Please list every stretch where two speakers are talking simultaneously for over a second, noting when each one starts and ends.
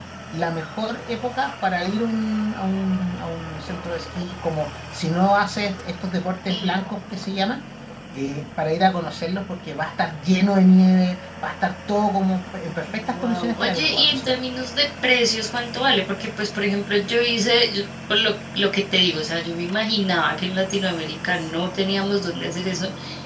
13.1-14.4

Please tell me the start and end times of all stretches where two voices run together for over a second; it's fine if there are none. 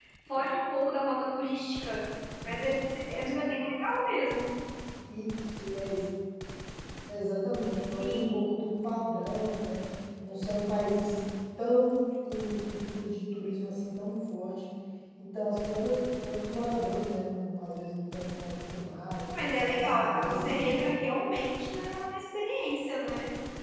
19.3-20.9

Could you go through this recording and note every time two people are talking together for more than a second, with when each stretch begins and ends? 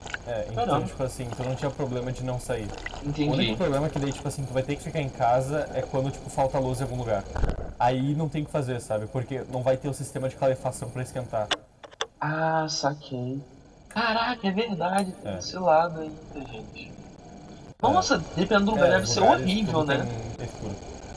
18.7-20.0

